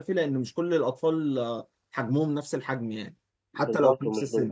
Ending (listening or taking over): taking over